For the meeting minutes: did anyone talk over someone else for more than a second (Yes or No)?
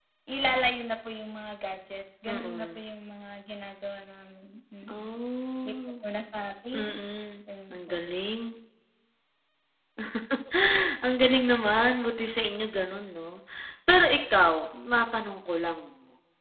No